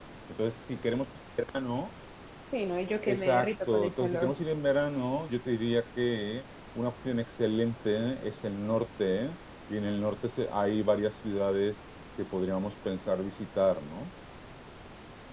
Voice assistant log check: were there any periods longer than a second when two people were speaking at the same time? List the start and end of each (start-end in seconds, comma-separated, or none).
3.1-4.3